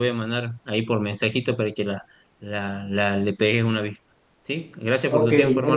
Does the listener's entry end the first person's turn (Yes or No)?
Yes